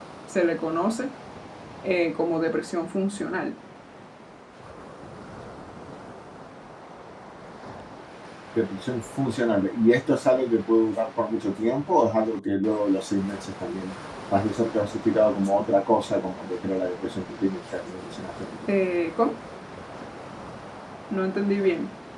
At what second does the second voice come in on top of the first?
none

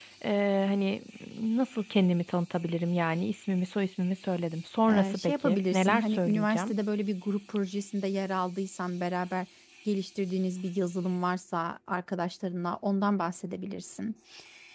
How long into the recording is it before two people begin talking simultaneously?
5 s

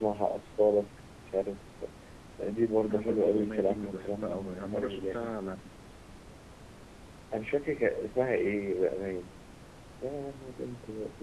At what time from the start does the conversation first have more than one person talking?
3 s

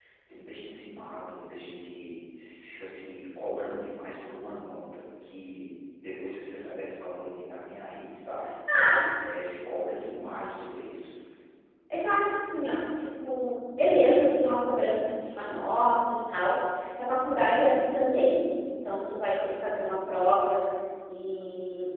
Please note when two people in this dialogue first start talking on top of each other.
none

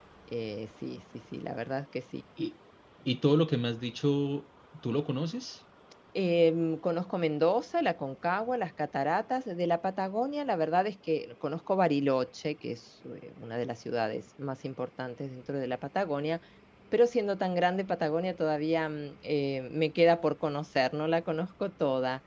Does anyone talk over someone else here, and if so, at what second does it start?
none

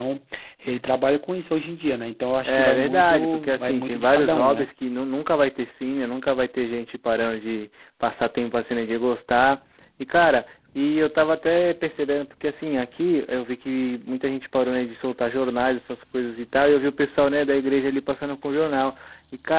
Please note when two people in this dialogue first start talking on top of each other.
2 s

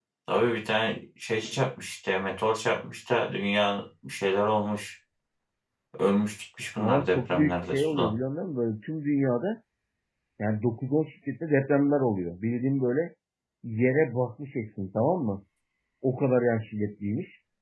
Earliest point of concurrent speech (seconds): 7 s

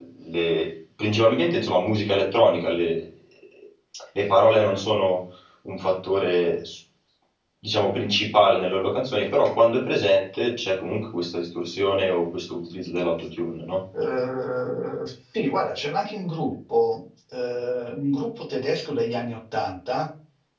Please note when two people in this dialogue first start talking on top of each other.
none

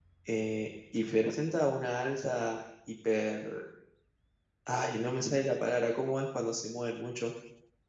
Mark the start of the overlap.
none

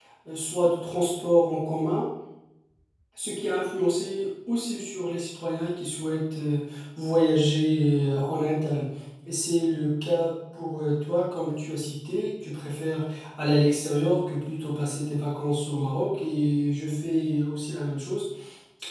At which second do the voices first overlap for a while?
none

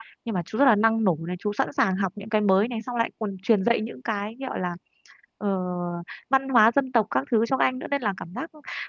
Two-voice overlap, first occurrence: none

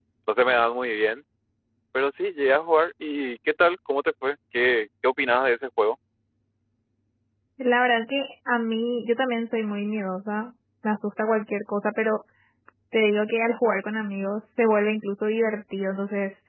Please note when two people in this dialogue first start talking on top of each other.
none

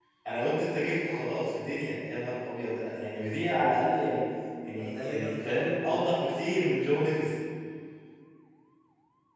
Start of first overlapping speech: 5 s

